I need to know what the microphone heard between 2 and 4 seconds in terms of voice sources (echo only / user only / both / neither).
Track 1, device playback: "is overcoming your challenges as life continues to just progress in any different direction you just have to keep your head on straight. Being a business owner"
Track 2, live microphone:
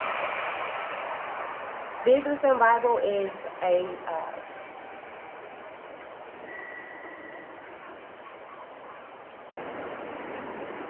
user only